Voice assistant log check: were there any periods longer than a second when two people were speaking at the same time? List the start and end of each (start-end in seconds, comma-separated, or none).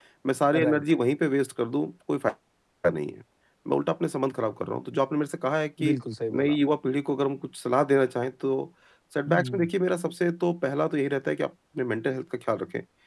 none